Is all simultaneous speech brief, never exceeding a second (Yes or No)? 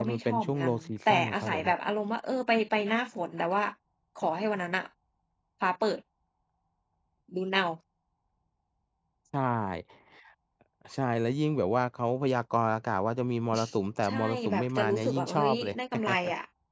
No